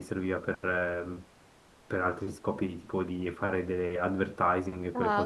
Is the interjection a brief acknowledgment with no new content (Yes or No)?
No